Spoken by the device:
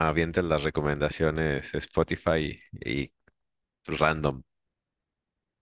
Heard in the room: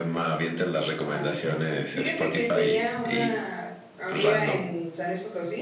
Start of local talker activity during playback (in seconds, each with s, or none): 1.0 s